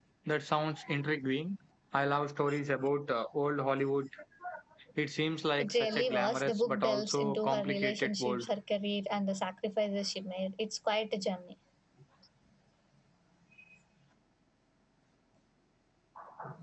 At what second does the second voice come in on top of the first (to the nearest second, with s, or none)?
6 s